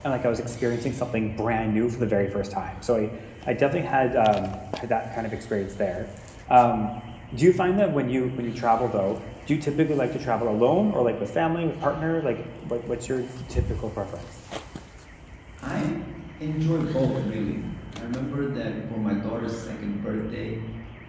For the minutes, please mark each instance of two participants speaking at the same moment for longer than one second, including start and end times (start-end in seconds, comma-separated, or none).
none